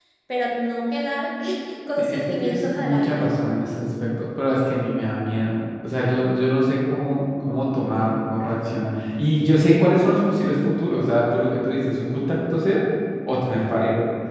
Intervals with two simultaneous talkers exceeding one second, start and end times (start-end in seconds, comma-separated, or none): 2.0-3.4